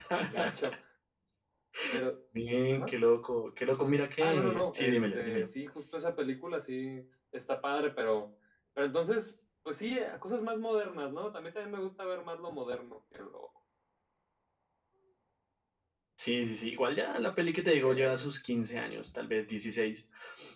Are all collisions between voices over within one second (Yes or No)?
No